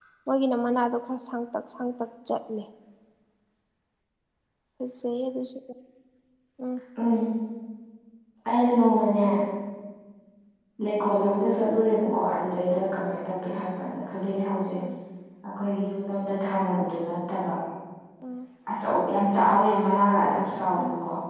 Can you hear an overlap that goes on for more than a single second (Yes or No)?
No